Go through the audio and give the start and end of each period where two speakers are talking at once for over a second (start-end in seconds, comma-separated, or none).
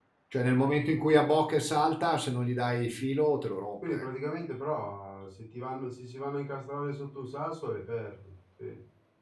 none